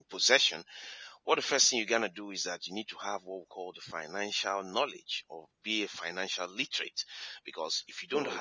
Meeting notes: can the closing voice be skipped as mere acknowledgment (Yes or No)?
Yes